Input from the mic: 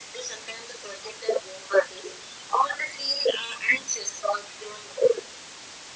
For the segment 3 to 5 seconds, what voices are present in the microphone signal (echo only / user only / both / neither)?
echo only